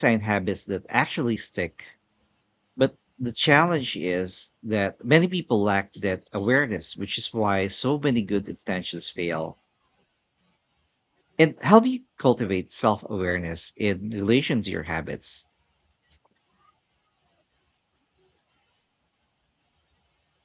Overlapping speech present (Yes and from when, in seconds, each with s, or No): No